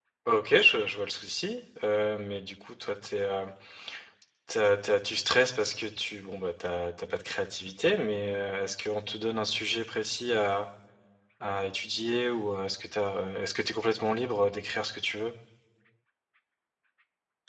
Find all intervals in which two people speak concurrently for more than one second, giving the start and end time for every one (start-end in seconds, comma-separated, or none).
none